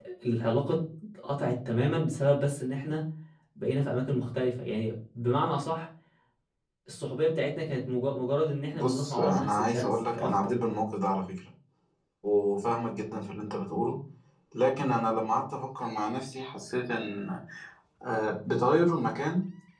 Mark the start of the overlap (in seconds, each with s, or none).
8.7 s